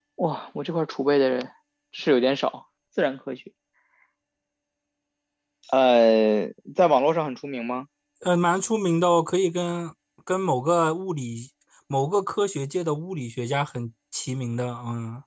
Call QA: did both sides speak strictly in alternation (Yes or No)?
Yes